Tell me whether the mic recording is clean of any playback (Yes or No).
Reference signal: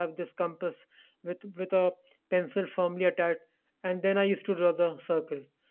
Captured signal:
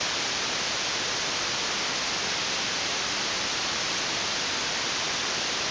Yes